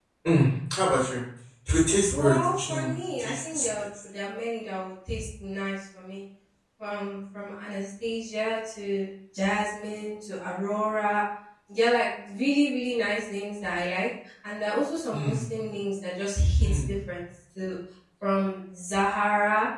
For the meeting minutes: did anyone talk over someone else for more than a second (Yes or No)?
Yes